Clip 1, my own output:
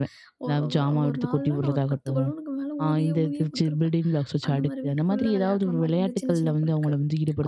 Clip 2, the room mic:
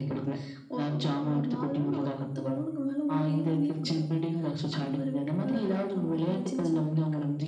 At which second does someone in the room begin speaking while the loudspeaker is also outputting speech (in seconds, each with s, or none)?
none